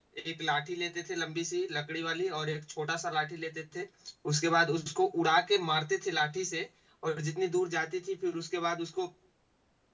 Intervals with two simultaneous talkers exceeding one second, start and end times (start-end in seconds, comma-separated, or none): none